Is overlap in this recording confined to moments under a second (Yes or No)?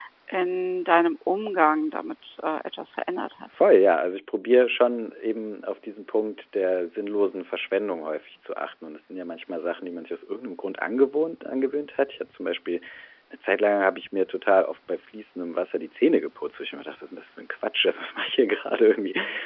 Yes